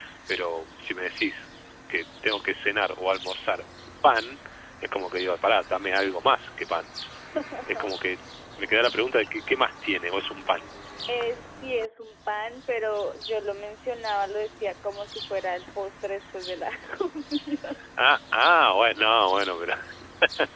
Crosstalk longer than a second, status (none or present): none